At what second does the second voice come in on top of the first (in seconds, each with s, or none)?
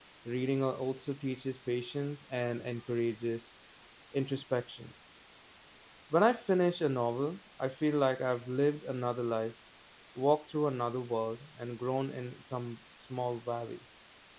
none